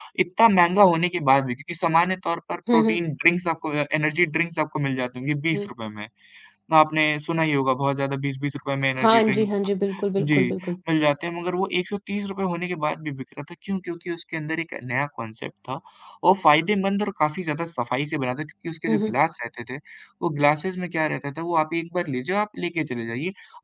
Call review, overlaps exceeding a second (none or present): none